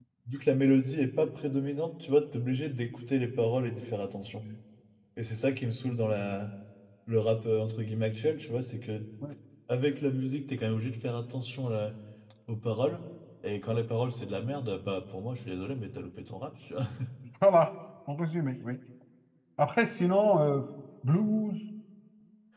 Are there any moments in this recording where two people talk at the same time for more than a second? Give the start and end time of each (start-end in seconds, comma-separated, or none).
none